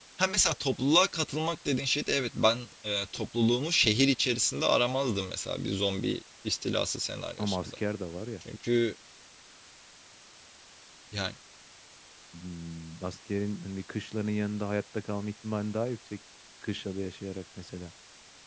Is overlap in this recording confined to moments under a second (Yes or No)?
Yes